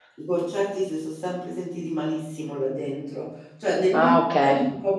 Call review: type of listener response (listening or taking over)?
listening